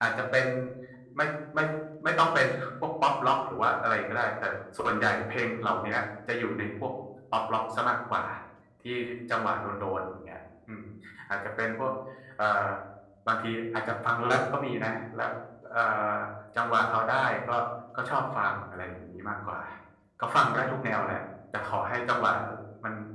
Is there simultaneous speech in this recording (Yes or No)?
No